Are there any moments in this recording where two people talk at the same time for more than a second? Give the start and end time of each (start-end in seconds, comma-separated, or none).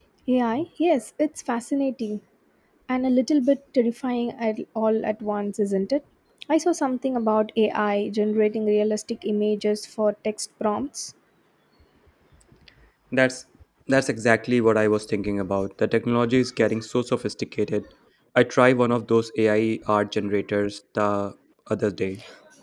none